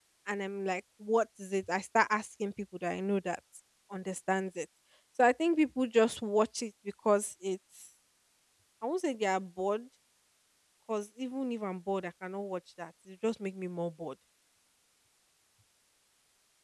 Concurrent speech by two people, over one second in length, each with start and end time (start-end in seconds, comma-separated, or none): none